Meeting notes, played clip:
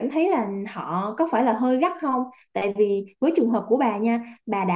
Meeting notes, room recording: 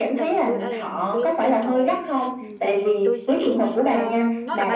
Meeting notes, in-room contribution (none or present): present